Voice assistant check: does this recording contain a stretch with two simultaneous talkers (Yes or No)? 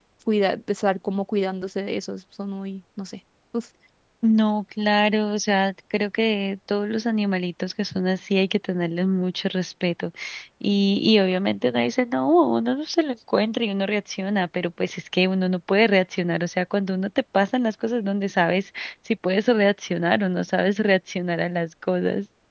No